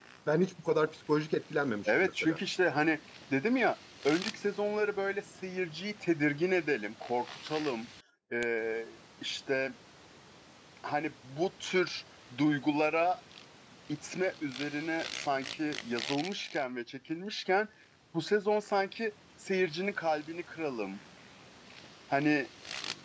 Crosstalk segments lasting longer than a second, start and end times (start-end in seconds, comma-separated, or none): none